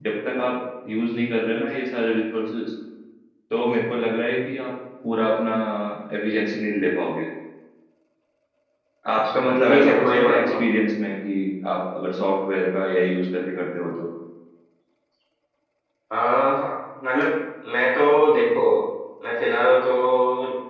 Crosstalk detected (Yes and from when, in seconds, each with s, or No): Yes, from 9.2 s